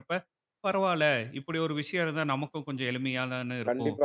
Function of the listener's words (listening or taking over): taking over